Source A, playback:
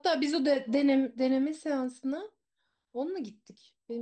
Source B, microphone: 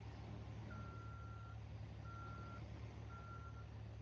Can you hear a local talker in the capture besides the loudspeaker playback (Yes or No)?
No